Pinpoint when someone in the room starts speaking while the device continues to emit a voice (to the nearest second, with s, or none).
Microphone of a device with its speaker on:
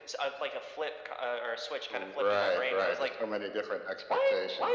none